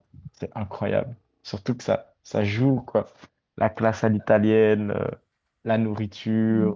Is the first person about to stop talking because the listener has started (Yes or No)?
Yes